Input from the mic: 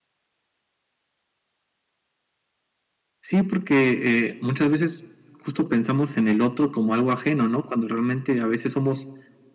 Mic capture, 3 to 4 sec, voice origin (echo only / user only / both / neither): echo only